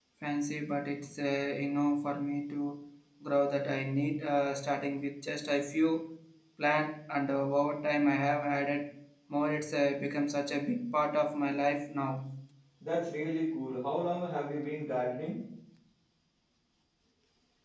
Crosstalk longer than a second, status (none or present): none